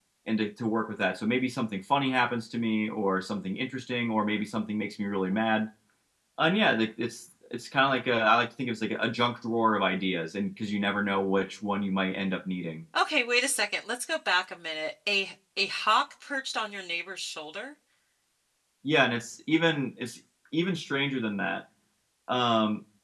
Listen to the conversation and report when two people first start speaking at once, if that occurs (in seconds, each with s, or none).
none